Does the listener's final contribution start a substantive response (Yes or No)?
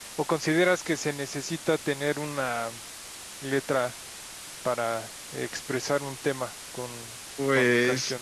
Yes